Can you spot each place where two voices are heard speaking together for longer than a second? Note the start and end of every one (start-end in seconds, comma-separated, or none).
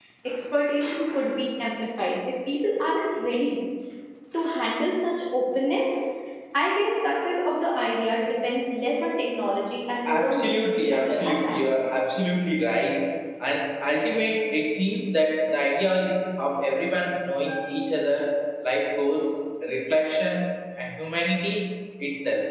10.0-11.8